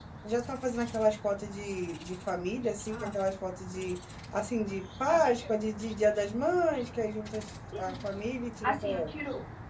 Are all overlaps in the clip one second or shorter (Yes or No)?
Yes